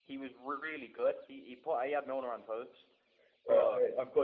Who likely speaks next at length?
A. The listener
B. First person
A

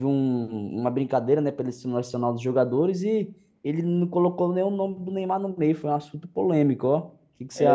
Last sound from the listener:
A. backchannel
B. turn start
B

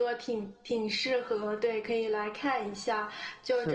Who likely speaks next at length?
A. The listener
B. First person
B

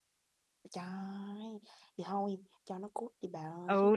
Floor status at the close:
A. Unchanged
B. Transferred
B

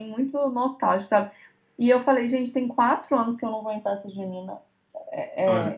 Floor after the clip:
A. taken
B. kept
B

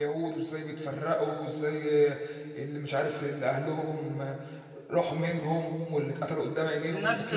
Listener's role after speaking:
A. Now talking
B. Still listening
A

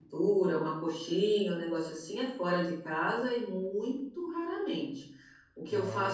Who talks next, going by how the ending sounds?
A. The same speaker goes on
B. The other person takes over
A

